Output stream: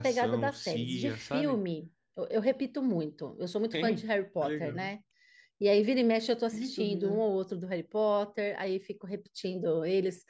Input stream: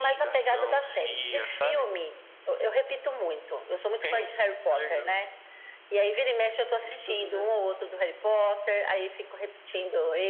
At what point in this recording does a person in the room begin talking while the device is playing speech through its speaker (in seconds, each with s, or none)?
none